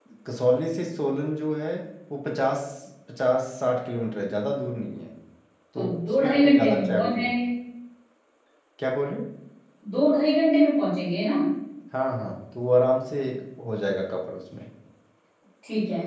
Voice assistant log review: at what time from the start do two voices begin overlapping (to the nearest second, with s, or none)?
6 s